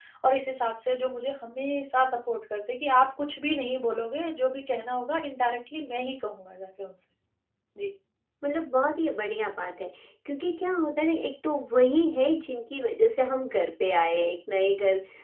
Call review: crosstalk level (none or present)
none